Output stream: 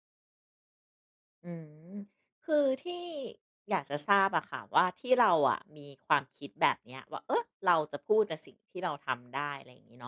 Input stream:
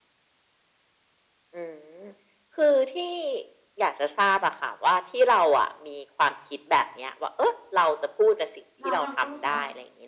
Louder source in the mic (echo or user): echo